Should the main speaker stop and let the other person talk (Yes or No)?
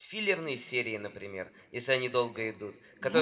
No